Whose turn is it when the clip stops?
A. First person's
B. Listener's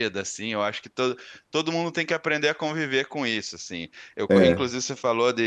A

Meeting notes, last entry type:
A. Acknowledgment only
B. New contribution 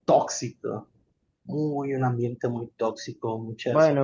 B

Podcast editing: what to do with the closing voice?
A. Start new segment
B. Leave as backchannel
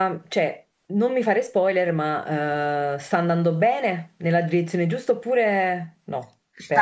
A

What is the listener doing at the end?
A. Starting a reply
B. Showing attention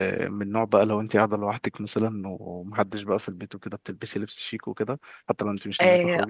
A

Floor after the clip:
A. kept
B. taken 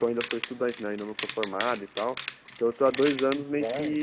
A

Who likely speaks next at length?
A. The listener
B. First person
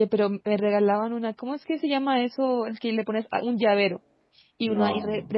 B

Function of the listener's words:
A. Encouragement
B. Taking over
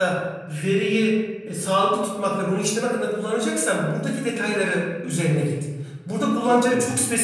A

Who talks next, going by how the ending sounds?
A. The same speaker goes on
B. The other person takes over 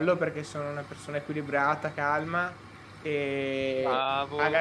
A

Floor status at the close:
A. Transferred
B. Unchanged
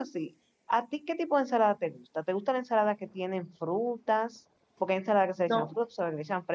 B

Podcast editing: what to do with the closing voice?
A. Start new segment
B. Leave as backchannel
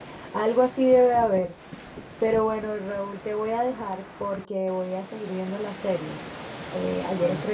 B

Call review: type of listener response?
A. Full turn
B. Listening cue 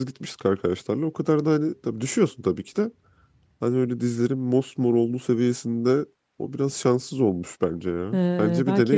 A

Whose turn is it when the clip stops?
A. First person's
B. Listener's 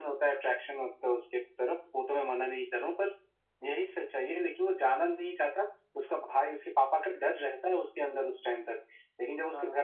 A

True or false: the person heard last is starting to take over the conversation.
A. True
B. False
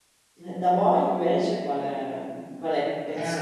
B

